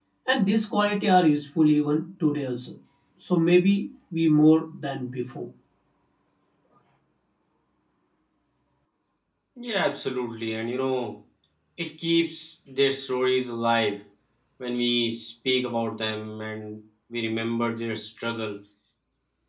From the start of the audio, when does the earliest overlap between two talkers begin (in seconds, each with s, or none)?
none